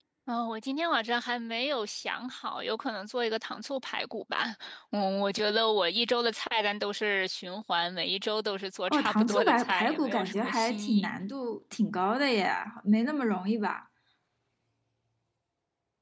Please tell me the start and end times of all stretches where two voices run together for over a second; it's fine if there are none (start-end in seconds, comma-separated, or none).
8.9-11.1